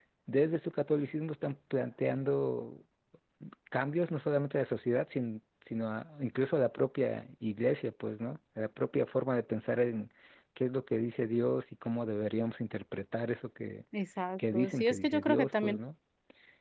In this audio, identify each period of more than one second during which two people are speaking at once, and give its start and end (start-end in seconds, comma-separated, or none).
14.5-15.8